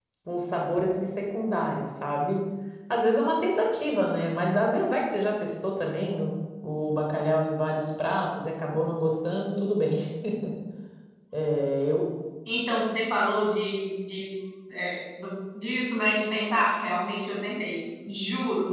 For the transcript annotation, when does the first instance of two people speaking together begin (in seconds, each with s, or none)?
none